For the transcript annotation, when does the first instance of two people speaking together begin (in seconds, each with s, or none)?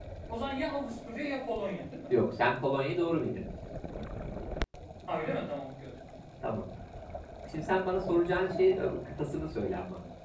none